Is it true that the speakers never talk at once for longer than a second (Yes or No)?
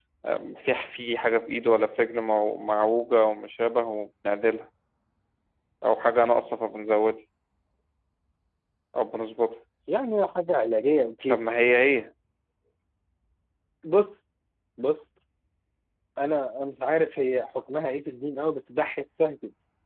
Yes